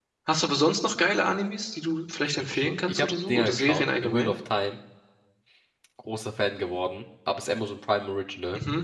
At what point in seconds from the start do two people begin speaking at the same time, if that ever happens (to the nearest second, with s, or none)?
2 s